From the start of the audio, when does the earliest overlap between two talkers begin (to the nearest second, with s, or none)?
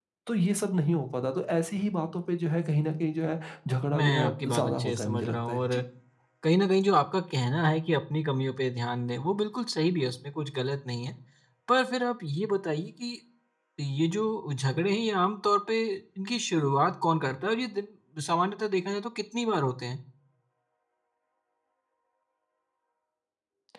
4 s